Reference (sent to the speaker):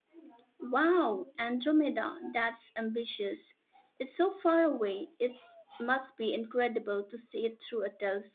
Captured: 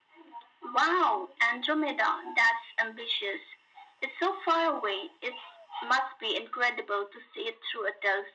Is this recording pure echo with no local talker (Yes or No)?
Yes